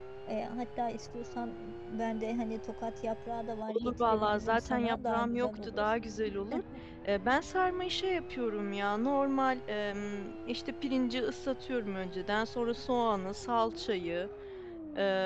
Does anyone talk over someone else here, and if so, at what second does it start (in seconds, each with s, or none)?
3.7 s